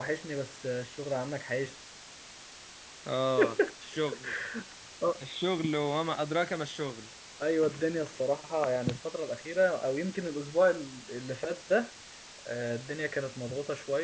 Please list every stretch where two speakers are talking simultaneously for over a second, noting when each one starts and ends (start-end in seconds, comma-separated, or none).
none